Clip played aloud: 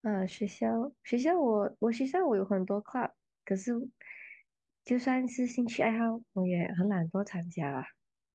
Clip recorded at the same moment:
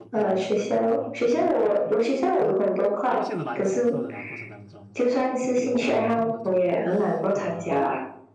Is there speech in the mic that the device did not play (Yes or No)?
Yes